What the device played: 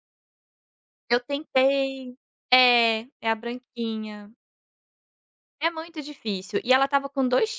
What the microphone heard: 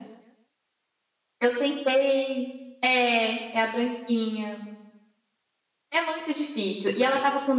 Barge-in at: none

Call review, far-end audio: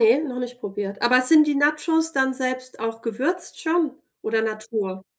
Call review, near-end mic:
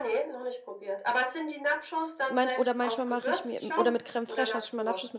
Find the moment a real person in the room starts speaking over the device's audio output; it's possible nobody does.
2.3 s

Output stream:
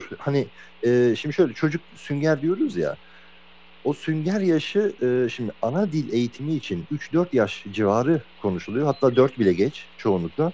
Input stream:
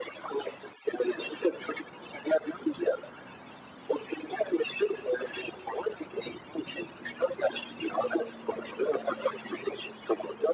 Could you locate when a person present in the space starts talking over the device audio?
none

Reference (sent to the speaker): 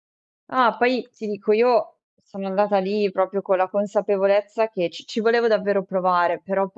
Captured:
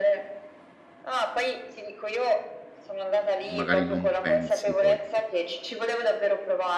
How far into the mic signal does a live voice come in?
3.4 s

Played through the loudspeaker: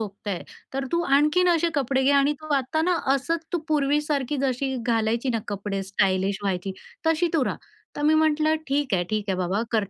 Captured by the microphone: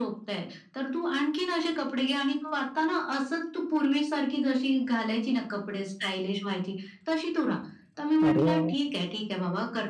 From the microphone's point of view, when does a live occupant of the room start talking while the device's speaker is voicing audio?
8.2 s

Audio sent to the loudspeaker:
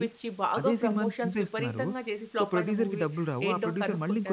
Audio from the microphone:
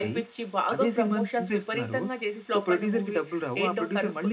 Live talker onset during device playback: none

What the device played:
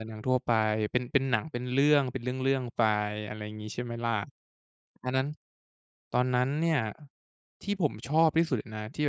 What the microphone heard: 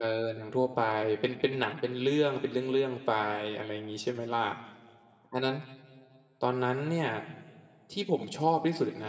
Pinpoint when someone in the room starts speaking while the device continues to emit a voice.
none

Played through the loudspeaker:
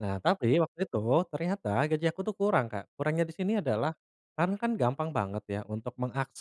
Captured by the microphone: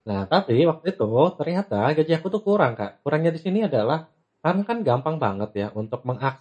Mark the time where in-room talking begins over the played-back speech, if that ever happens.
none

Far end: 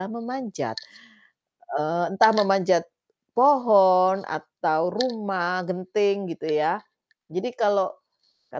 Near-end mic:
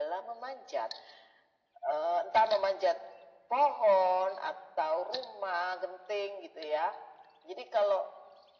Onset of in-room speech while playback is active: none

